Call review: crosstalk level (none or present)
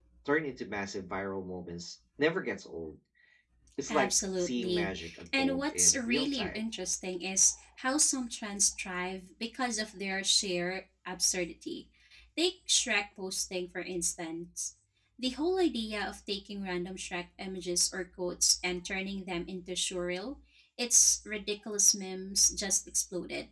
present